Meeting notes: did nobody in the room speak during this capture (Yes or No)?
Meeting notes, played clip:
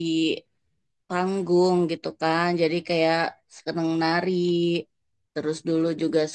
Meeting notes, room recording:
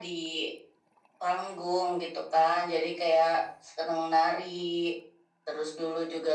Yes